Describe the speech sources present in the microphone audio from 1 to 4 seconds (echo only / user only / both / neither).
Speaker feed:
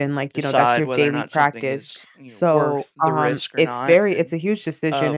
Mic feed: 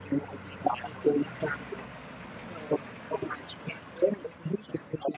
echo only